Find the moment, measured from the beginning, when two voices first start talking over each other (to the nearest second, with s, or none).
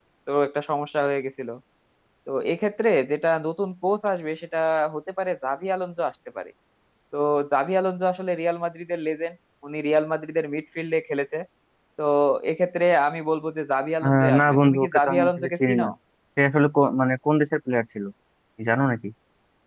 14 s